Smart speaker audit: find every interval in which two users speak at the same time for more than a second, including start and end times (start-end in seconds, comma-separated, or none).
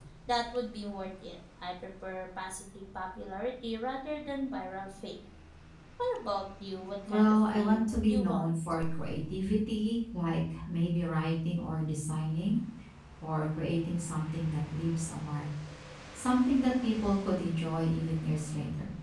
7.1-8.5